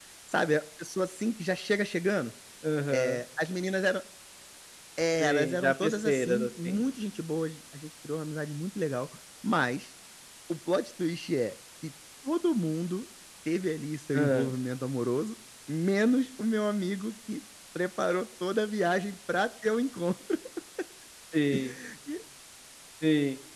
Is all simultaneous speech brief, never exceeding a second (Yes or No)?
No